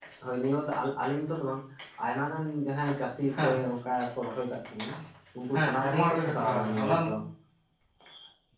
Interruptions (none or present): present